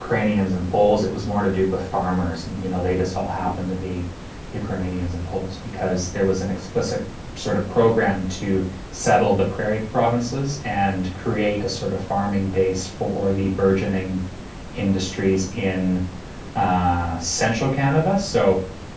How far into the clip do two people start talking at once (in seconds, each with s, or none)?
none